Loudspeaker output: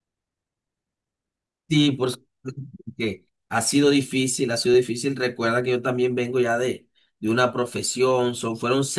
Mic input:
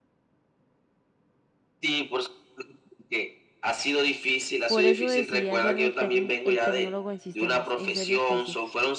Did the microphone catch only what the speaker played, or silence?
No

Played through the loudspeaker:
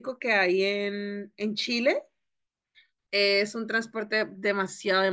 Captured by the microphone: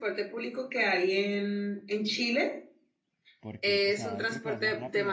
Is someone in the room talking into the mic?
Yes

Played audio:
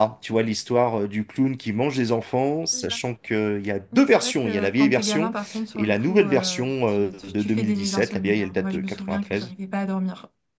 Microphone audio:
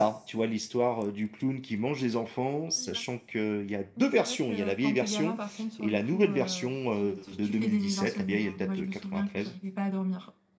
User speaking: No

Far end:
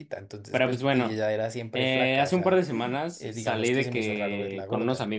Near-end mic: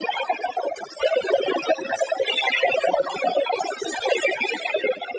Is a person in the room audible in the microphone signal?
No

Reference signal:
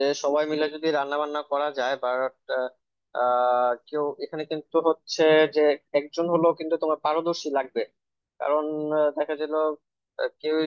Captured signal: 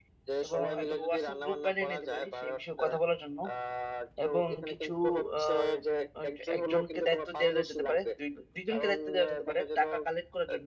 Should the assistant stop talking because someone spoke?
Yes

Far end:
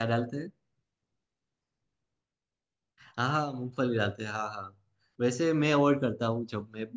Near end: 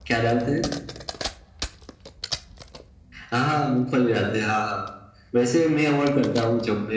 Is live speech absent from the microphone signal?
Yes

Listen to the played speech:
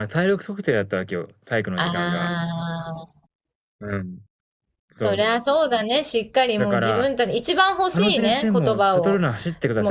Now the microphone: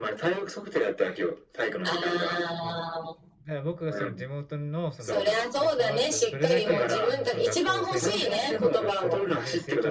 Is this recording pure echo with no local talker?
No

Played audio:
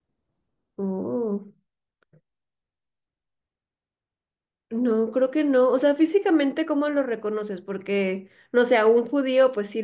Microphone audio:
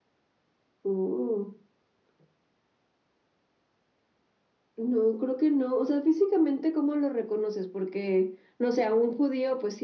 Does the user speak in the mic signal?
No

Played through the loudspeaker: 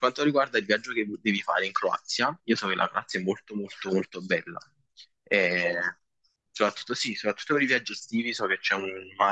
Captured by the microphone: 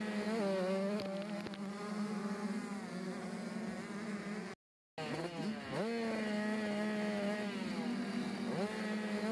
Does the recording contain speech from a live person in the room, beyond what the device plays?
No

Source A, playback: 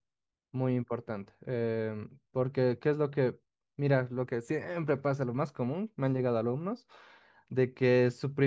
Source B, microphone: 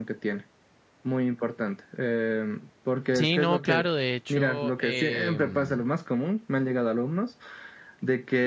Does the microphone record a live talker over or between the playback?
Yes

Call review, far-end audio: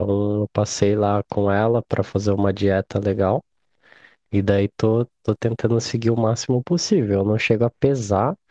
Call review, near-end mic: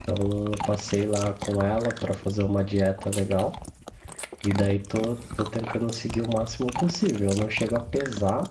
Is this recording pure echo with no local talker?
Yes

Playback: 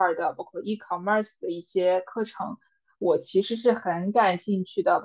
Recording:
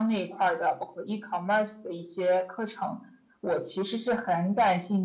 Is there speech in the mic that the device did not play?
No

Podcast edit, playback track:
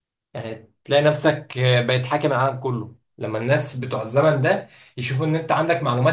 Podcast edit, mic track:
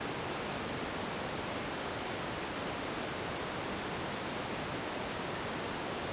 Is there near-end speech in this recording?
No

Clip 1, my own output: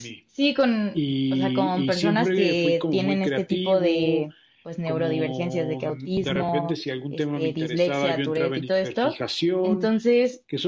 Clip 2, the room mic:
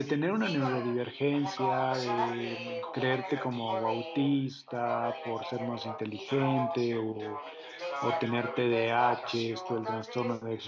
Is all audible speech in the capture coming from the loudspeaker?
No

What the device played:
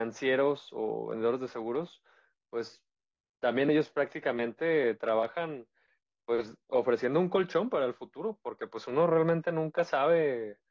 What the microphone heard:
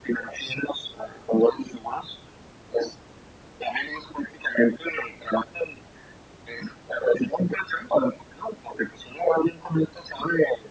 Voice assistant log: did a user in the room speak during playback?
No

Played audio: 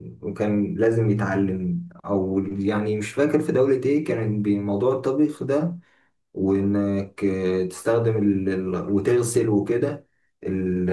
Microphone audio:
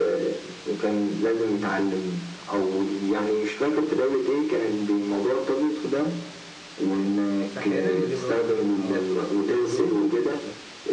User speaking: Yes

